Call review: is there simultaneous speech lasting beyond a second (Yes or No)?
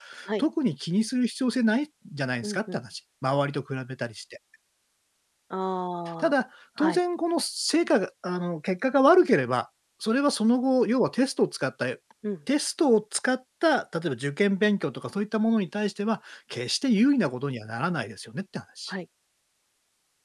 No